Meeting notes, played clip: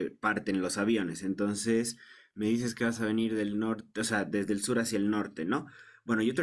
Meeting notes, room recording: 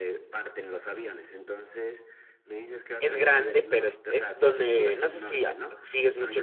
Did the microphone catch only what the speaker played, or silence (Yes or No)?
No